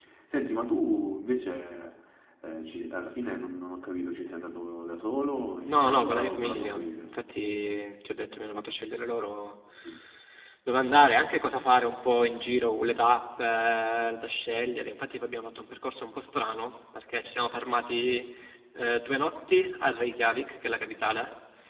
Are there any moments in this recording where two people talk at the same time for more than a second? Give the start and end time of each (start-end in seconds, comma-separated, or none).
5.6-7.0